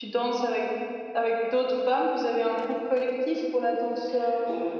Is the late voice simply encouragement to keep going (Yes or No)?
No